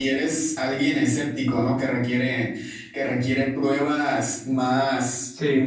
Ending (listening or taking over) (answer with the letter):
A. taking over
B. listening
A